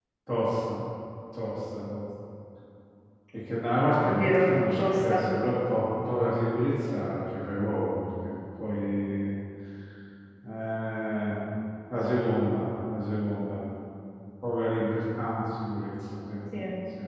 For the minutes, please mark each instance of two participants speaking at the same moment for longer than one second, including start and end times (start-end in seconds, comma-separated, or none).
4.0-5.2